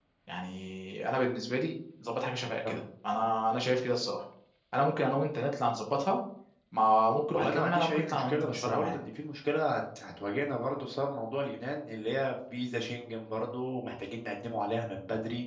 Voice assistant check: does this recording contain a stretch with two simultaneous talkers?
Yes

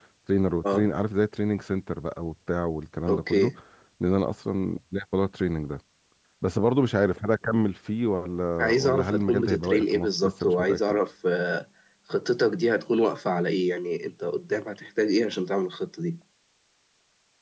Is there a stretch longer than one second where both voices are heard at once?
Yes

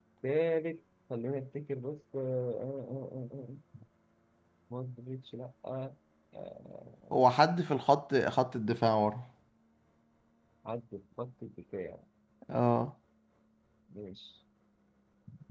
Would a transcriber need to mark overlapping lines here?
No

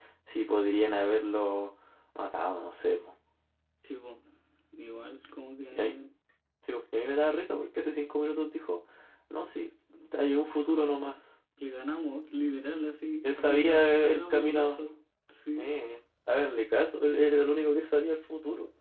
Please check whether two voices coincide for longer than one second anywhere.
Yes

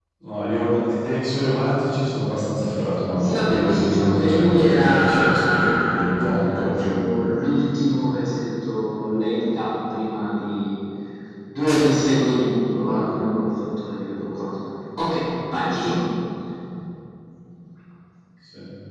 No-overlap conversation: No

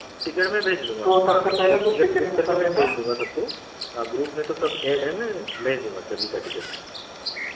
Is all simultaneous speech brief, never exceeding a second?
No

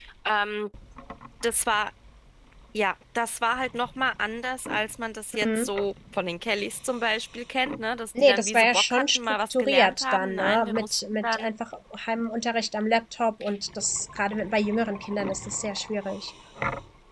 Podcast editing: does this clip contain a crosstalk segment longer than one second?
Yes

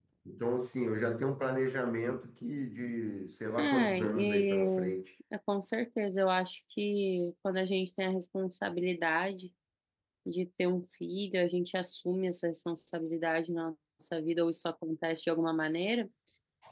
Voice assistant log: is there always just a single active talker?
No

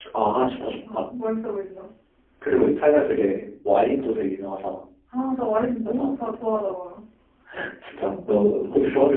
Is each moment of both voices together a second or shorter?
Yes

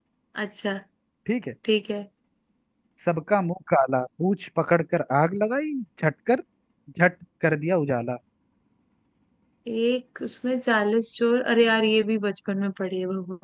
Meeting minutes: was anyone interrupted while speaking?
No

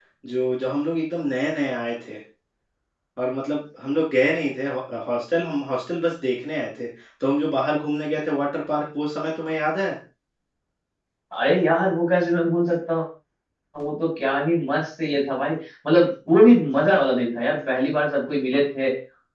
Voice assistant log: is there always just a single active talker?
Yes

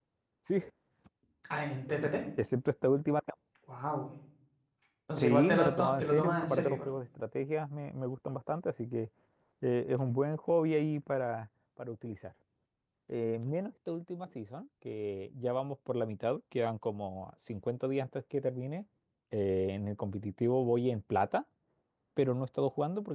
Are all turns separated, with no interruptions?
No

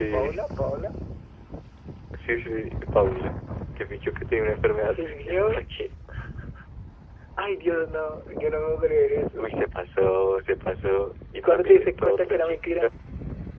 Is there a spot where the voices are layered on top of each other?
Yes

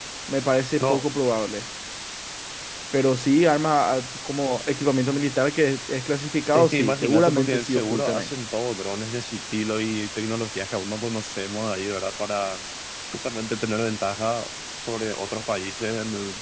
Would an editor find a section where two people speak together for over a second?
Yes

